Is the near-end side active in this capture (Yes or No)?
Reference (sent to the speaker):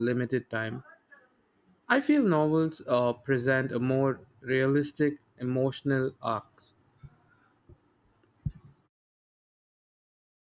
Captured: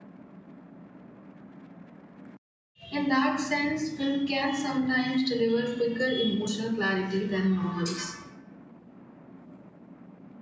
Yes